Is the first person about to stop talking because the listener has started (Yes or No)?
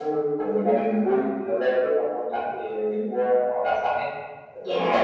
Yes